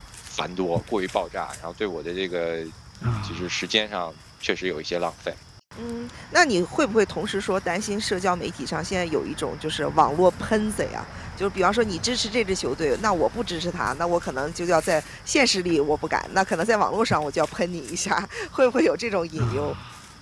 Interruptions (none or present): none